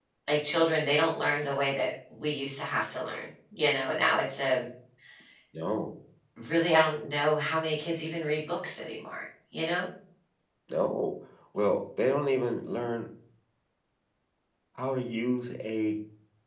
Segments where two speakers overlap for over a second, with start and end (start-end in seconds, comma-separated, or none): none